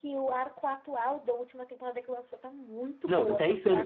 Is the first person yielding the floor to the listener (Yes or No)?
Yes